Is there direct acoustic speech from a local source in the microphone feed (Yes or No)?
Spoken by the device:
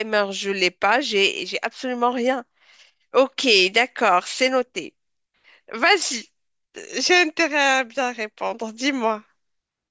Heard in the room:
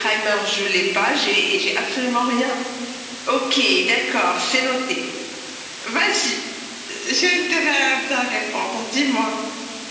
No